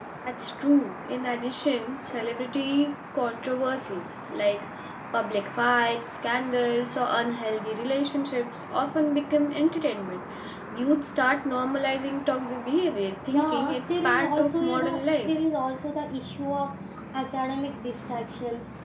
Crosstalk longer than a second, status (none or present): present